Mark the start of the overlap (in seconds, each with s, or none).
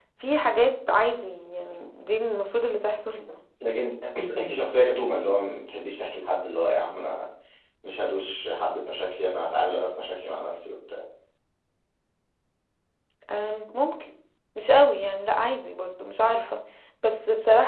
none